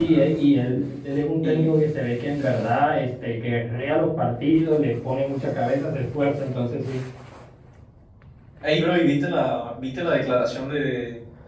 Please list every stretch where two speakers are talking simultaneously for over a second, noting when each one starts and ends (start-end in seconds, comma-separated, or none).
none